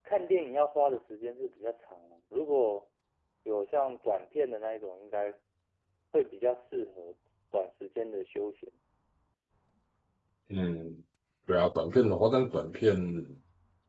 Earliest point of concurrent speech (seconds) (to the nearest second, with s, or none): none